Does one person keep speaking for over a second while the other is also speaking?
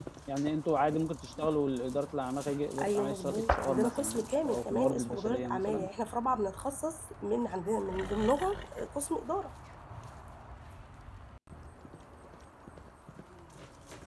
Yes, from 2.8 s

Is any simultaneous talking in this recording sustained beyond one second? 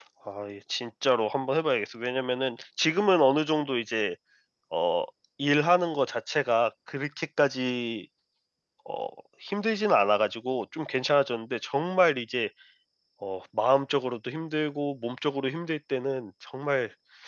No

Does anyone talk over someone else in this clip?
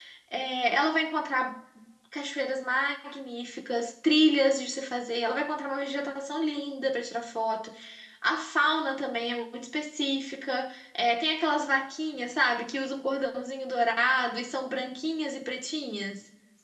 No

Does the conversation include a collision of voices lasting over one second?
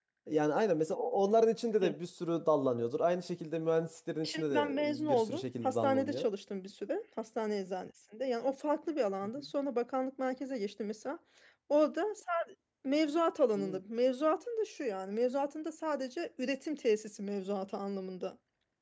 Yes, from 4.2 s

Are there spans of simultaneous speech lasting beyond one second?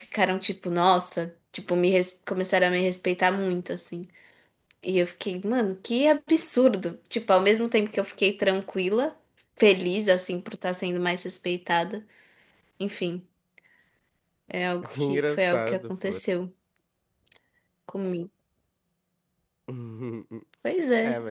Yes, from 15.0 s

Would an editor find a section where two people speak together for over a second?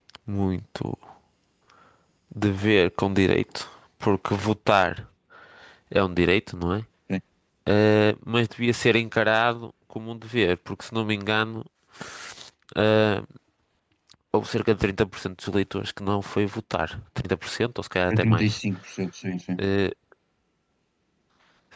No

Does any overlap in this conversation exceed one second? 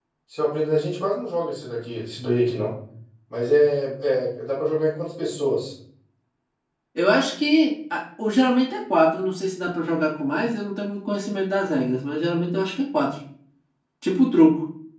No

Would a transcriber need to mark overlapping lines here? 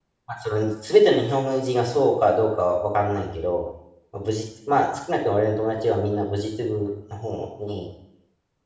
No

